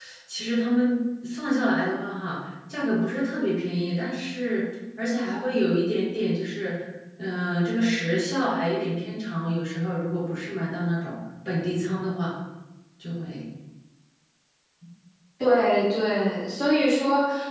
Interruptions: none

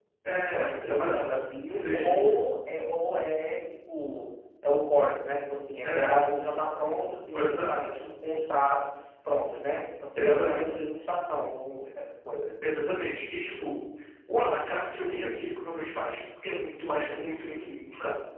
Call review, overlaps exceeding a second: present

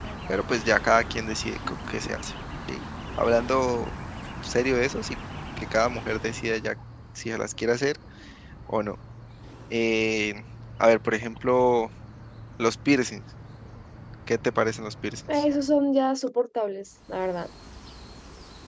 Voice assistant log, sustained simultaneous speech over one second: none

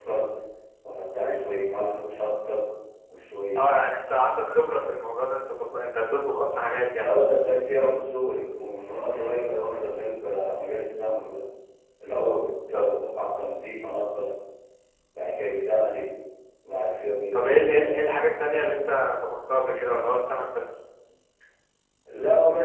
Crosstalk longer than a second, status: none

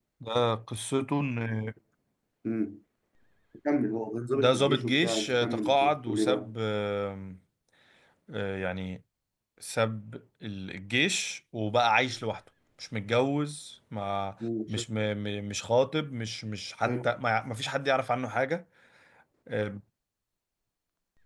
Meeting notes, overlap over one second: present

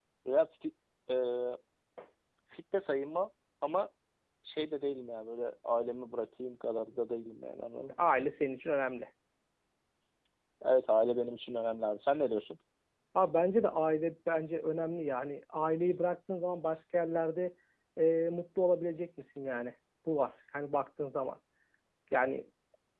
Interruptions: none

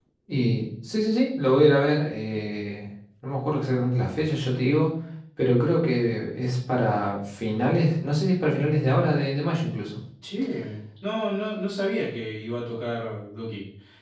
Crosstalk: none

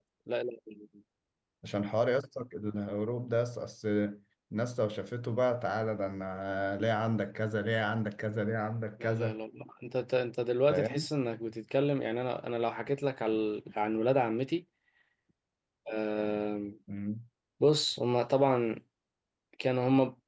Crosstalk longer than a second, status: none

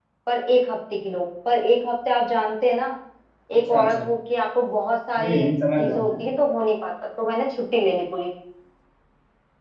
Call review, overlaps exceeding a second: none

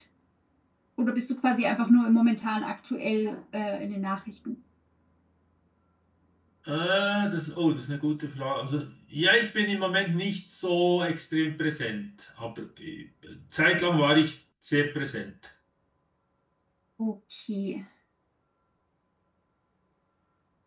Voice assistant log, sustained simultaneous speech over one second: none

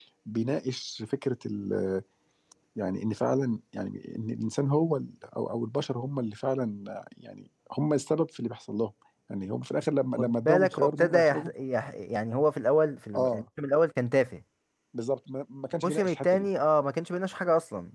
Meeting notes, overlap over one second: present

